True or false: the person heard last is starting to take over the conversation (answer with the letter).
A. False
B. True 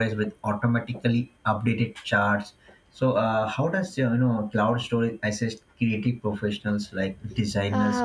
B